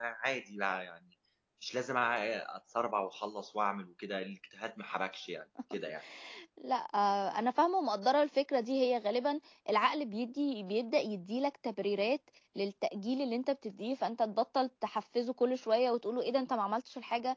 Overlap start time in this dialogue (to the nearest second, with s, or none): none